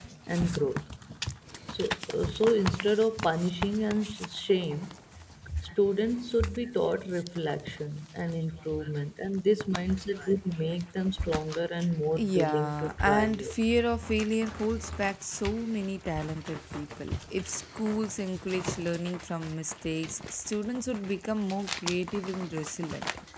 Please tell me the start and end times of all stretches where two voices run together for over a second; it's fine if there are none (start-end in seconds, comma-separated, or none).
12.2-13.5